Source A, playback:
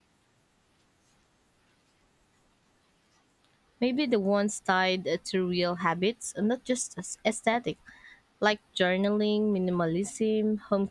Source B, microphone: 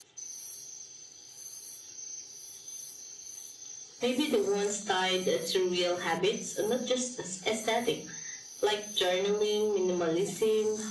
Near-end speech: none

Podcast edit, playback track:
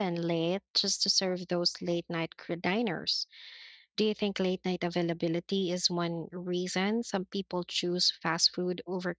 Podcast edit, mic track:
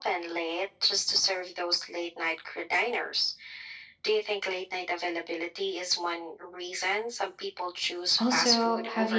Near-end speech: present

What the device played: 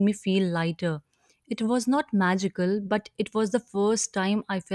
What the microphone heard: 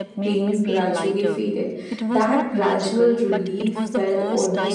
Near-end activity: present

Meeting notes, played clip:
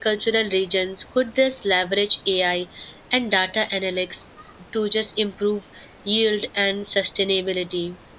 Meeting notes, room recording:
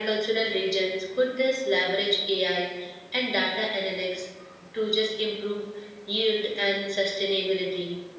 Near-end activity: none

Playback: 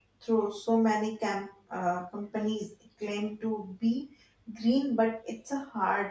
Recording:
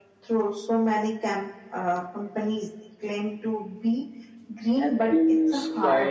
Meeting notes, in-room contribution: present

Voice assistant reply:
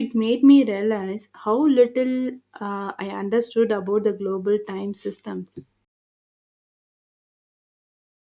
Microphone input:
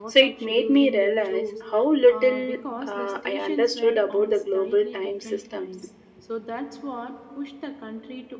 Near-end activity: present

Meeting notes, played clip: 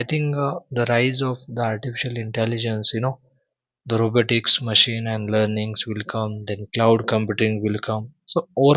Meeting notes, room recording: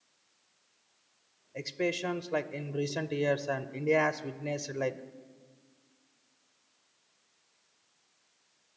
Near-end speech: present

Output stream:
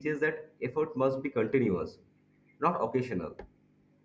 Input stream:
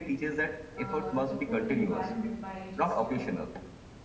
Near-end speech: present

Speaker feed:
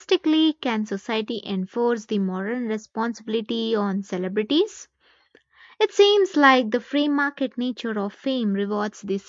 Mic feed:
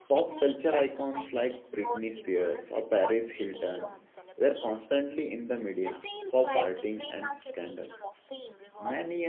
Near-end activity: present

